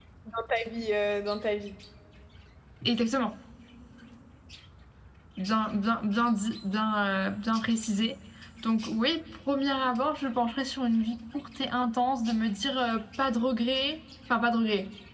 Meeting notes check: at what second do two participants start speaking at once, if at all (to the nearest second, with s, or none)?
none